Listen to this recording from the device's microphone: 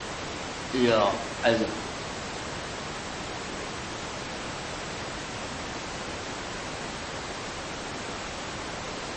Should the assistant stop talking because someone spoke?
Yes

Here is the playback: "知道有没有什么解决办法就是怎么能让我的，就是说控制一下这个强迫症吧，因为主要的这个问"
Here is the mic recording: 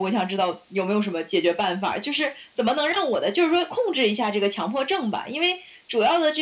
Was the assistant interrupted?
No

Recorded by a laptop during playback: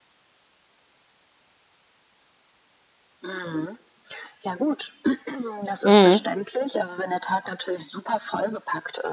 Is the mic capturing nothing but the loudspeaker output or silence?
No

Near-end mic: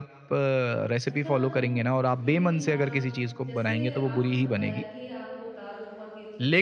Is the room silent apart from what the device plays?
No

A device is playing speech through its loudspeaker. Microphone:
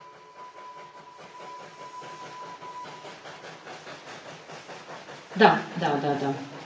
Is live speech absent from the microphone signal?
No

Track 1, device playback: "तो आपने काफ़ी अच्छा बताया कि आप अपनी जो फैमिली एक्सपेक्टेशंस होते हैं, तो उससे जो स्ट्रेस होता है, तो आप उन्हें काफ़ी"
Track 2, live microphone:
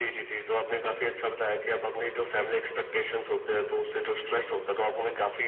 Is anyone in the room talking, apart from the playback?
No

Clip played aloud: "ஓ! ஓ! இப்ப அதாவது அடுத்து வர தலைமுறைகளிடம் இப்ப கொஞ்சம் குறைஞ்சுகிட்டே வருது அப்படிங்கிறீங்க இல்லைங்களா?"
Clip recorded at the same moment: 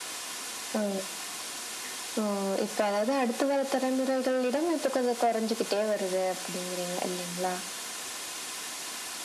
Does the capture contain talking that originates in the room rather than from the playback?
No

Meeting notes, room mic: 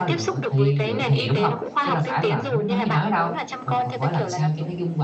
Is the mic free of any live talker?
No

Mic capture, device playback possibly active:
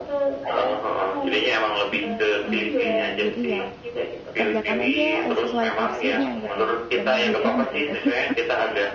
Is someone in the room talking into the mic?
Yes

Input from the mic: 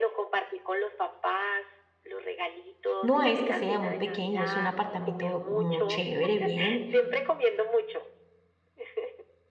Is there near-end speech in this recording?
Yes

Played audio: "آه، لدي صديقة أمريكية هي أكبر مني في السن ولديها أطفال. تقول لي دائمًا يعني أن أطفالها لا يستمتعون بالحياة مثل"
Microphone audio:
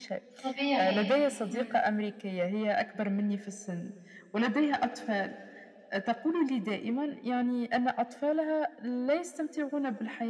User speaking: Yes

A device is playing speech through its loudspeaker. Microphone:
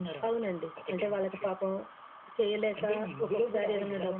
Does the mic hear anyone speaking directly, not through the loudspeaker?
No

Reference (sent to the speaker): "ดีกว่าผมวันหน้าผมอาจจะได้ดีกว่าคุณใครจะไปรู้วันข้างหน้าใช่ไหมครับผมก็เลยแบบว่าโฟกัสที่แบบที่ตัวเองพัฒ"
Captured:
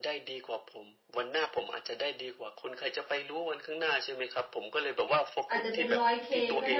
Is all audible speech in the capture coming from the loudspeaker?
No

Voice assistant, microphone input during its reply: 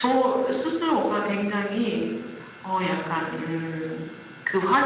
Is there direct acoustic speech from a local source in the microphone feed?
No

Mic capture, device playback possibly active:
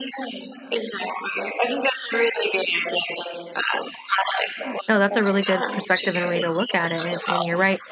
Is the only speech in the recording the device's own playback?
No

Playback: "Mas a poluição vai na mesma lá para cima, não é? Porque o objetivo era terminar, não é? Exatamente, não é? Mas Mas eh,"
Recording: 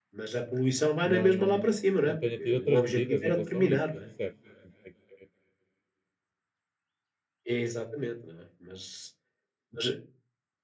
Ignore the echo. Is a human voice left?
Yes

